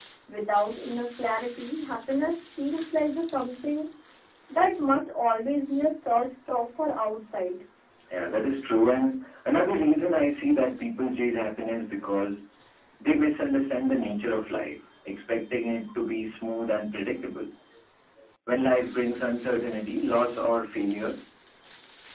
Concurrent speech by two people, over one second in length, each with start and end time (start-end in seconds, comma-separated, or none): none